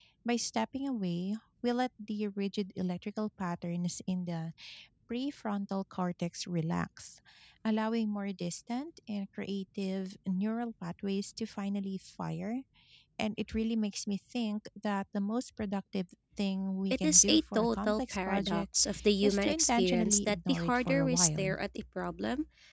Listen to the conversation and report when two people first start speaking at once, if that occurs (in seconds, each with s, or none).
16.9 s